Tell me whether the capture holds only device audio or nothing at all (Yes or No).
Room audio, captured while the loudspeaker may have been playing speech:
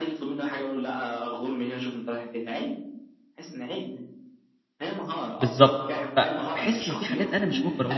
No